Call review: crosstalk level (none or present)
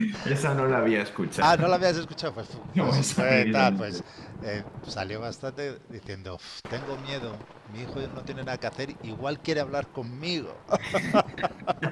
present